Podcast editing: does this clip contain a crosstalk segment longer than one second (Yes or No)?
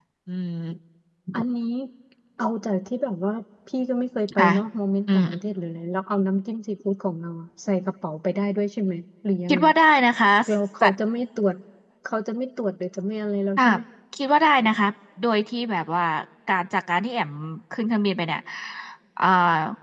No